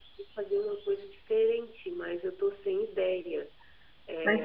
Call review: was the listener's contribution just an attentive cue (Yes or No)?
No